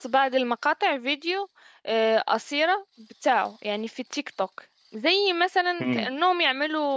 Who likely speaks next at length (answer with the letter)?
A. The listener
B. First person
B